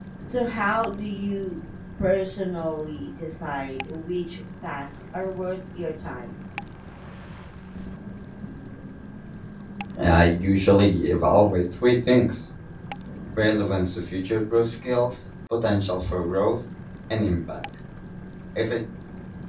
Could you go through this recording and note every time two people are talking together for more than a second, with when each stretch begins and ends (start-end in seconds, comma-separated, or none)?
none